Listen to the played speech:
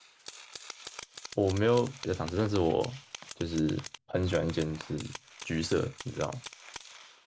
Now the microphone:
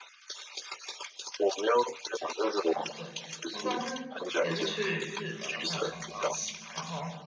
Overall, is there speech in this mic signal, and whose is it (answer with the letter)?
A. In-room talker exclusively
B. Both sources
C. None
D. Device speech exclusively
B